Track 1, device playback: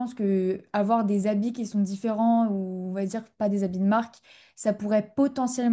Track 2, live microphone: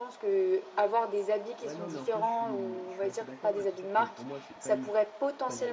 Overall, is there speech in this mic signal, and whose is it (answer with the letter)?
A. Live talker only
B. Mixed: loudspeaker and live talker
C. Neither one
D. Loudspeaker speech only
B